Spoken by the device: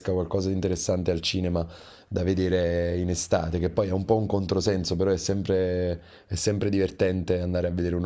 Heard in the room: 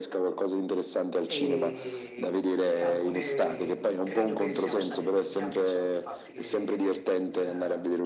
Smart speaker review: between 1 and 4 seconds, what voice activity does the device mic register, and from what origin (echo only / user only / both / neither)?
both